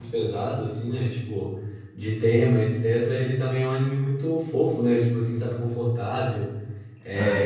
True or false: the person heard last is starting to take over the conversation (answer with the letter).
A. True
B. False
B